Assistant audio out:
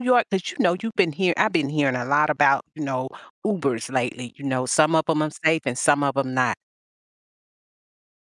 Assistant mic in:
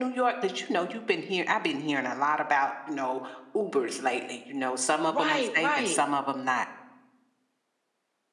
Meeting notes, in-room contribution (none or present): present